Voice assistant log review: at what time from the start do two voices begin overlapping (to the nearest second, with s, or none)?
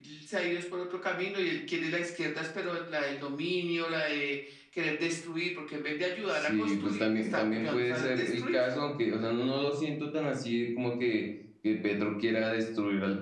6 s